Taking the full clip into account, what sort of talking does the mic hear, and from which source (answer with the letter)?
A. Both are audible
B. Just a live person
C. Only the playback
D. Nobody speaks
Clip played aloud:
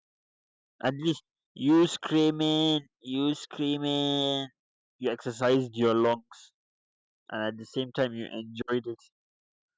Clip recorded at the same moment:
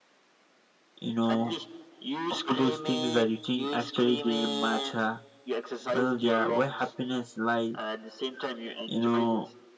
A